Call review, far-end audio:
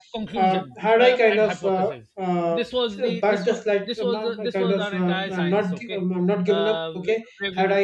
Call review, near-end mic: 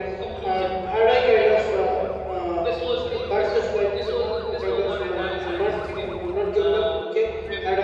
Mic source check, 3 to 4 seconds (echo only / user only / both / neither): echo only